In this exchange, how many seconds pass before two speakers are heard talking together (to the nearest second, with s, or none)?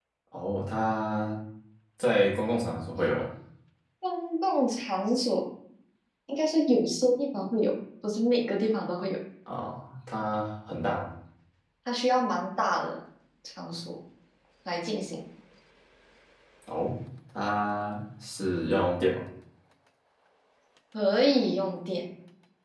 none